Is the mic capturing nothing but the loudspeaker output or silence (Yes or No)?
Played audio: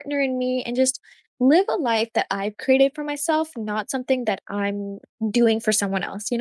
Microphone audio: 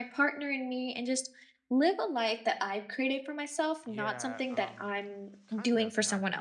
No